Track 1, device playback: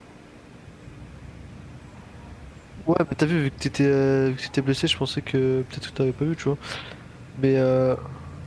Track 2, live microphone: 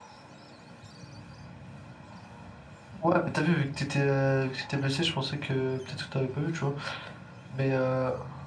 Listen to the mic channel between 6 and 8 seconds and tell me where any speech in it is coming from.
echo only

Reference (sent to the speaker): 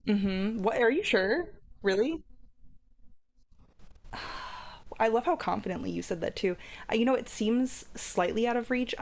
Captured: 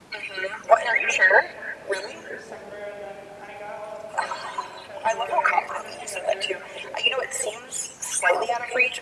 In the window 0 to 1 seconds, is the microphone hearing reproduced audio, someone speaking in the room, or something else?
both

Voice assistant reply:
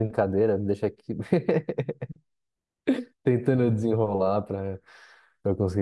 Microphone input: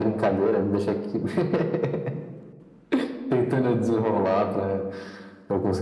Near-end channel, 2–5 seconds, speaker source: echo only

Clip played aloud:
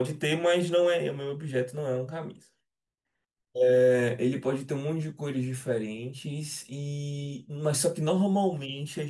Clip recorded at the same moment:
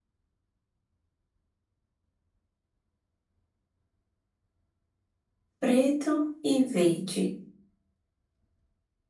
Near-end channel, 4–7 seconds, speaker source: user only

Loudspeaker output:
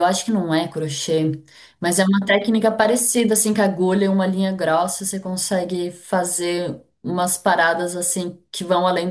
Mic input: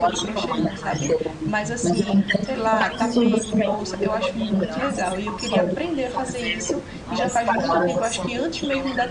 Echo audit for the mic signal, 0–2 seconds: both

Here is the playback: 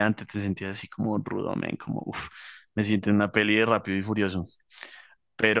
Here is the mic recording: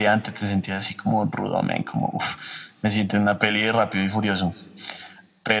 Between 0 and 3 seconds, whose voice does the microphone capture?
echo only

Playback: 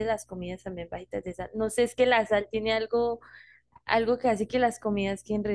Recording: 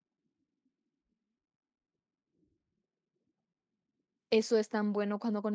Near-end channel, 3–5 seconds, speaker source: user only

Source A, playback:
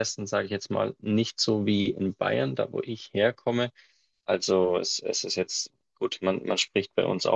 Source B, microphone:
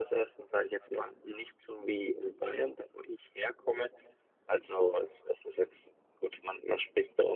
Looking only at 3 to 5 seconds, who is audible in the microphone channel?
echo only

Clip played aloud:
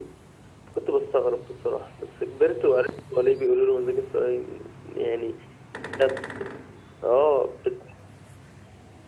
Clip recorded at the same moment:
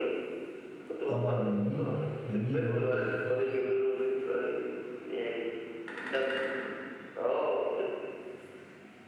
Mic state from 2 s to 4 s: both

